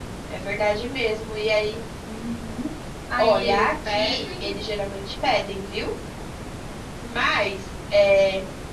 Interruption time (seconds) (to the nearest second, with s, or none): 3 s